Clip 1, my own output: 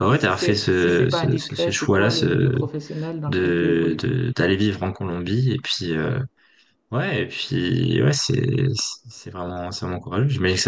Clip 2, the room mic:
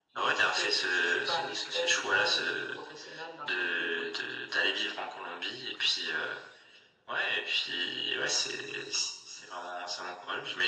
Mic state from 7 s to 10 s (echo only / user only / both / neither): echo only